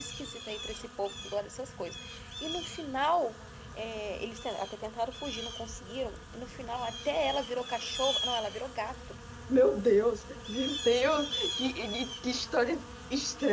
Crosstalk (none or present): none